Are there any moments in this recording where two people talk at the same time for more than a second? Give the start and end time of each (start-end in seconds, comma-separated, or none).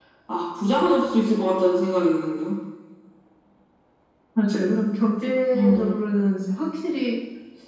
none